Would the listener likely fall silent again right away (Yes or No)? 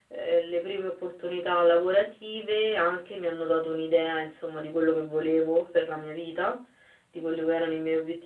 Yes